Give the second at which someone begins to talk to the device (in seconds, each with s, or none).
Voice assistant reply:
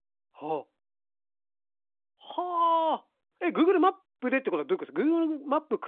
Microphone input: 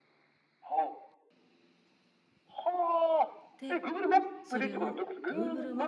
3.6 s